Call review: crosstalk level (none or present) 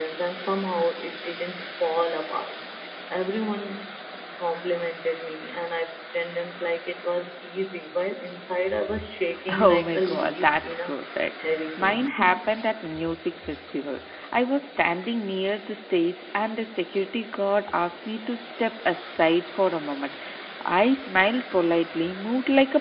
present